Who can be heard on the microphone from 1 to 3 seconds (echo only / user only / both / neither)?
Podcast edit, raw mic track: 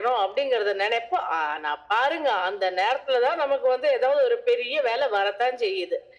echo only